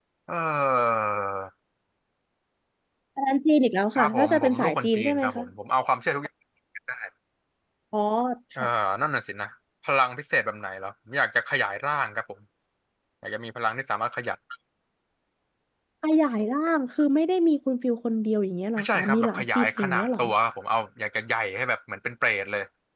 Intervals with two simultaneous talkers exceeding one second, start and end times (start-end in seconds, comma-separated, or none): 4.0-5.4, 18.8-20.2